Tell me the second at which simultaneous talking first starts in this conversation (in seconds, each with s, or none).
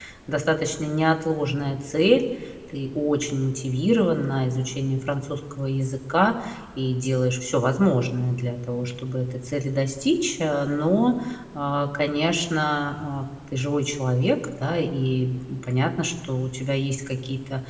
none